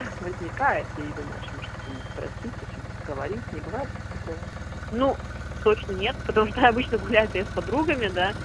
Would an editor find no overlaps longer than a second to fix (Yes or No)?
Yes